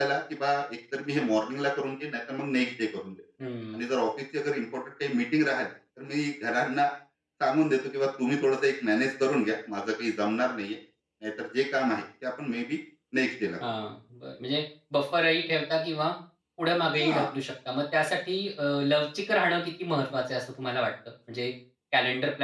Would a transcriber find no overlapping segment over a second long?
Yes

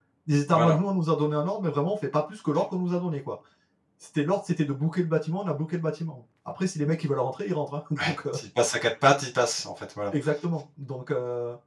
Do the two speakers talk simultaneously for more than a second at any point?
No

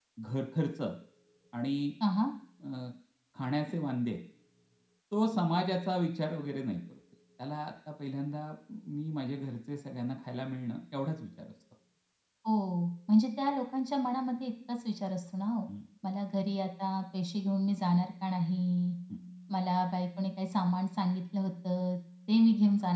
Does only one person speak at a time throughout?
Yes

